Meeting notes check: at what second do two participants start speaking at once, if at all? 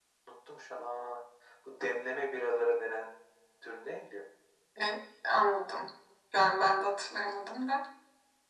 none

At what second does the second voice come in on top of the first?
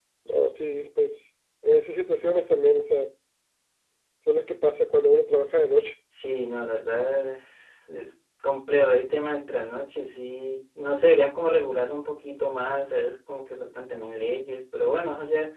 none

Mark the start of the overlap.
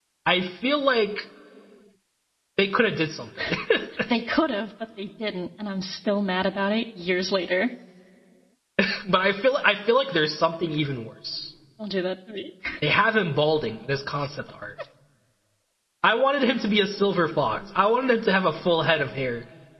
none

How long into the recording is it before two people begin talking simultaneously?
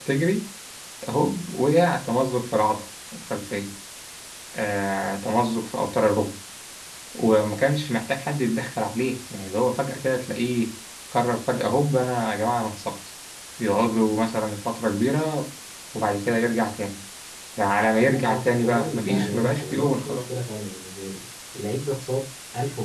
18.0 s

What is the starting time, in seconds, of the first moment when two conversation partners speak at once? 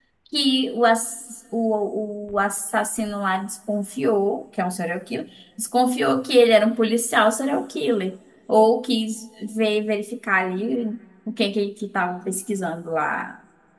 none

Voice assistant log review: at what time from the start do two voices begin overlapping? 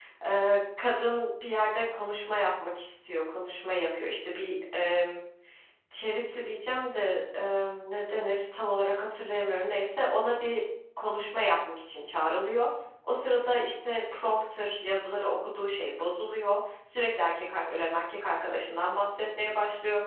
none

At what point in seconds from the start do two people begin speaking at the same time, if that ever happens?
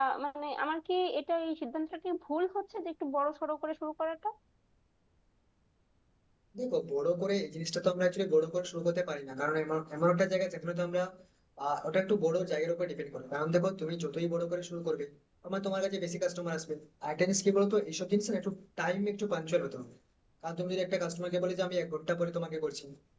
none

